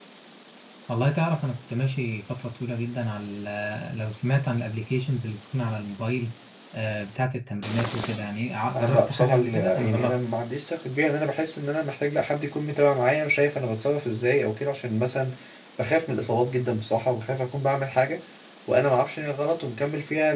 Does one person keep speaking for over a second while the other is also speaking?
Yes, from 8.7 s

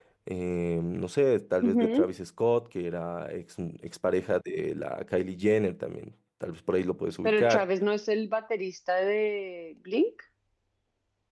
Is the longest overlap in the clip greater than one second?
No

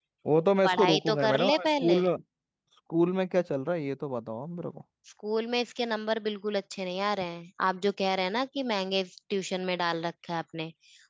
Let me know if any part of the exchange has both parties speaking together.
Yes, from 0.6 s

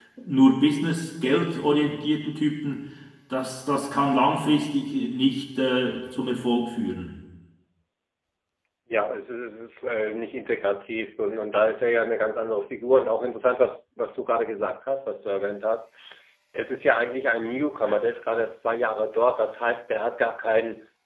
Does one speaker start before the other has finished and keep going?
No

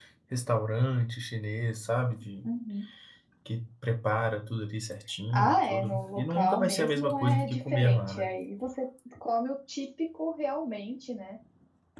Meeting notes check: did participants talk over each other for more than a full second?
Yes, from 5.3 s

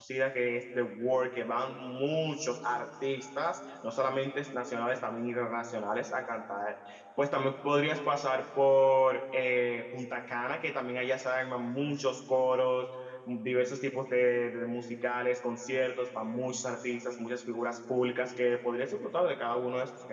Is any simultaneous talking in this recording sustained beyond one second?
No

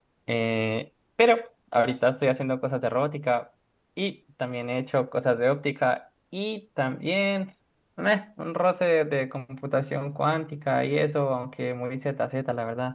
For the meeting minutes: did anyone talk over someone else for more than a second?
No

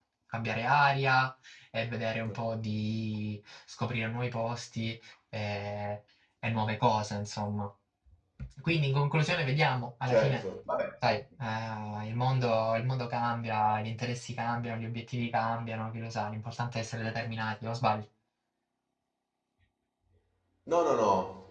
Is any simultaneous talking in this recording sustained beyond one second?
No

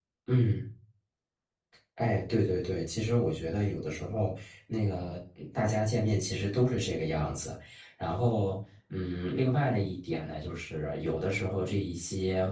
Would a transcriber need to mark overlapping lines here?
No

